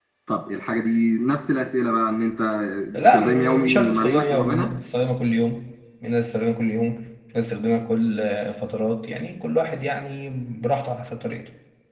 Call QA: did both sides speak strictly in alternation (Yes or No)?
No